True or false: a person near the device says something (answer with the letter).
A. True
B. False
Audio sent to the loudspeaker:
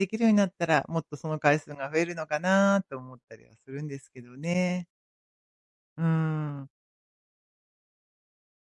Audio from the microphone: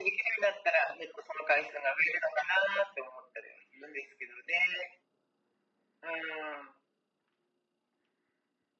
B